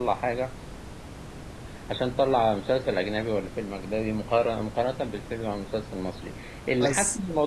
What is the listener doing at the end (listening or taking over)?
listening